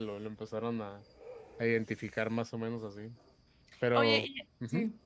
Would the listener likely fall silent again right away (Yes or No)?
No